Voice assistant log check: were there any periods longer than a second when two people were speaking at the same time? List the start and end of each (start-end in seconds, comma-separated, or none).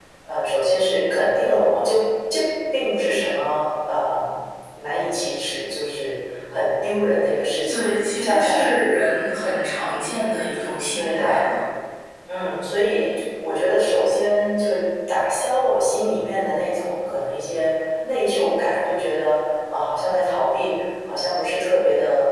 7.7-9.0